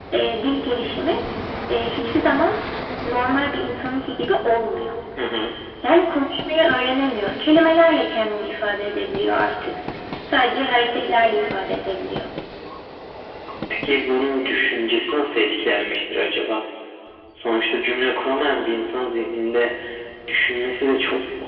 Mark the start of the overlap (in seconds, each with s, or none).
none